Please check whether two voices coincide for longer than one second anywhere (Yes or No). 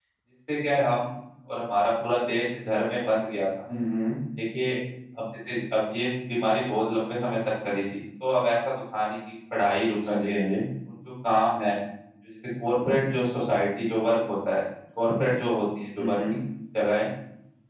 No